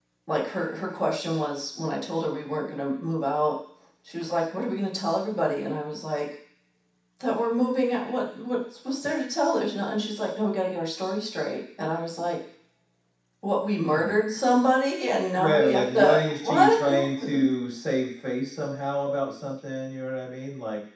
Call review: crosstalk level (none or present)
present